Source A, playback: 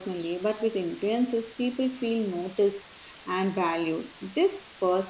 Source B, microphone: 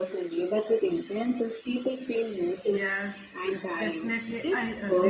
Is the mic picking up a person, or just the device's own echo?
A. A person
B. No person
A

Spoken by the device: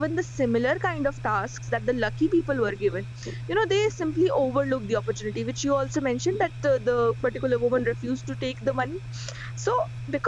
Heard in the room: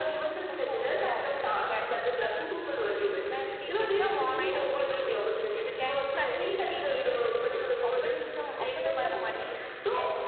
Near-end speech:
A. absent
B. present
B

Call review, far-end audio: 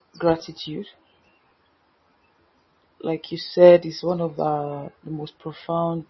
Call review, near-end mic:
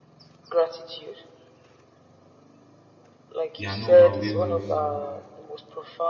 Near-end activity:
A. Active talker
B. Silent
A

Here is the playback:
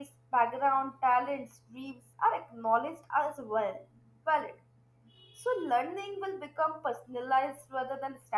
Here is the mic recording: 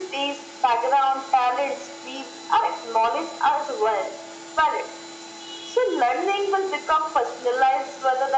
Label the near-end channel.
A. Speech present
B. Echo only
B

